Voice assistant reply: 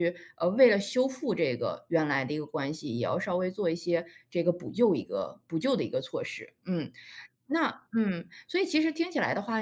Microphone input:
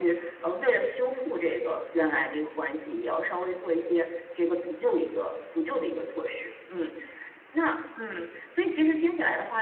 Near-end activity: none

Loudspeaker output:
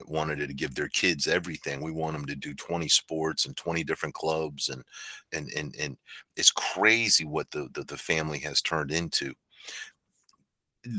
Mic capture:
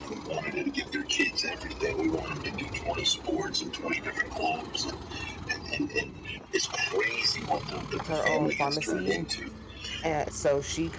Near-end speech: present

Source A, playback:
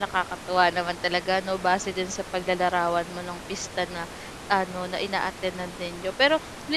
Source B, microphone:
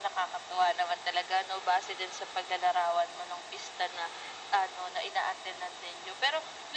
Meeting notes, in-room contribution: none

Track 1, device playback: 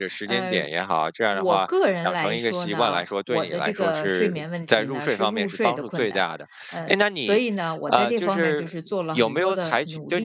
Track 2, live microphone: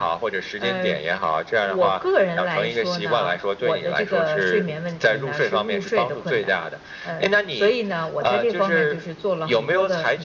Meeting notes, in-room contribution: none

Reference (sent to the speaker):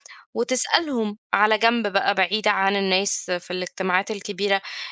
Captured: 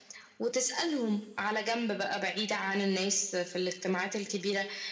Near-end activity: none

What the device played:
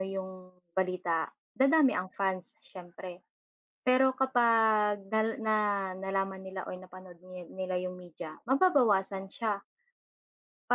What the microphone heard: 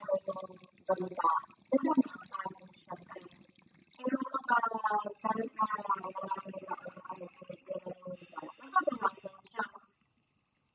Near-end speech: none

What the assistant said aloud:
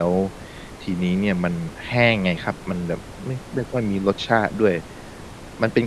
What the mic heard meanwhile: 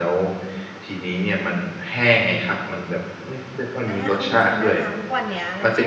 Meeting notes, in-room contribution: present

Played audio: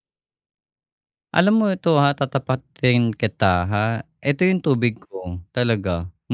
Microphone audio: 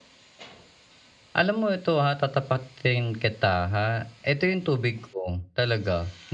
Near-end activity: none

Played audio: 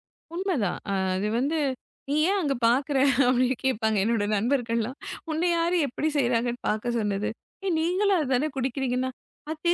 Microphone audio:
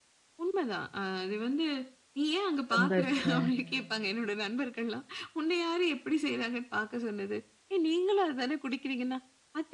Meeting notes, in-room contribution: present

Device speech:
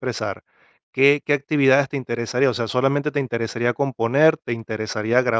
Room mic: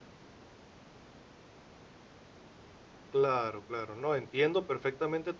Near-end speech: present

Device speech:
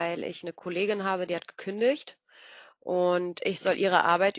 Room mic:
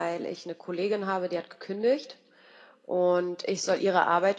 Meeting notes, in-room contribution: none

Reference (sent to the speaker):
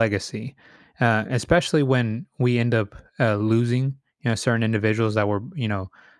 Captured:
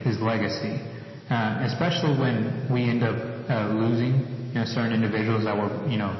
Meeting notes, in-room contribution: none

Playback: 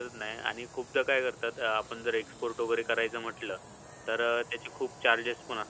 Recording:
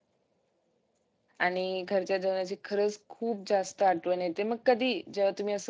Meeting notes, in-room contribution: present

